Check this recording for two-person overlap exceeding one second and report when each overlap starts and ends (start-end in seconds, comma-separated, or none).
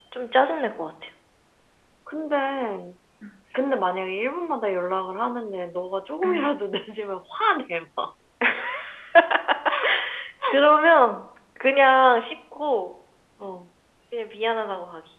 none